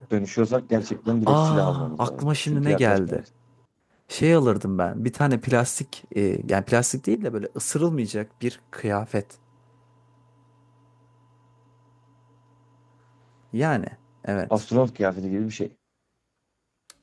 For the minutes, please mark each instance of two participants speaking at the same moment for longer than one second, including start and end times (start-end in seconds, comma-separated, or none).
1.3-3.2